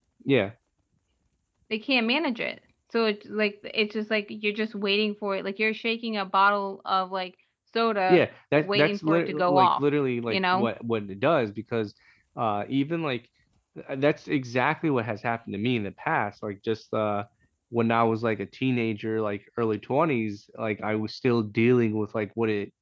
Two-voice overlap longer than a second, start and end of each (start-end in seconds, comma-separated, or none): 8.6-9.8